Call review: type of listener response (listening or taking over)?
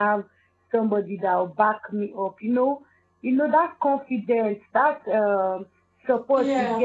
listening